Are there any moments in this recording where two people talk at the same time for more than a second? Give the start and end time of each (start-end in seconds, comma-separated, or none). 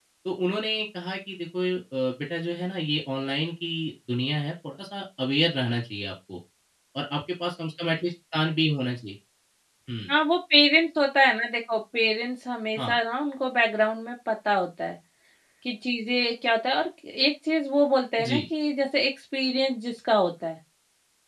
none